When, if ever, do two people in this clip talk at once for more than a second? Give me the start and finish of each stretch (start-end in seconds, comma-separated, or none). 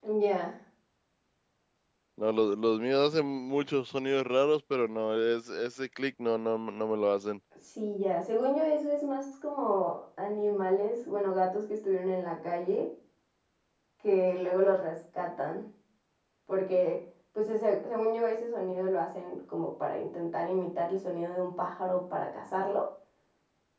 none